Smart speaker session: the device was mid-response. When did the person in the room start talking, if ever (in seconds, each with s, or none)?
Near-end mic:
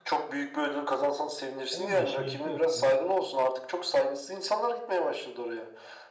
1.7 s